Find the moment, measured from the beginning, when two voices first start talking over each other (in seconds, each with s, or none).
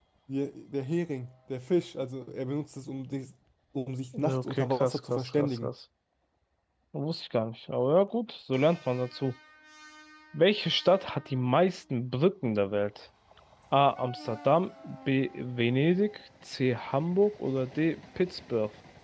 4.2 s